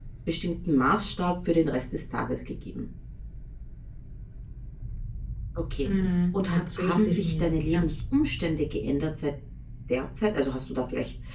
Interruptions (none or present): present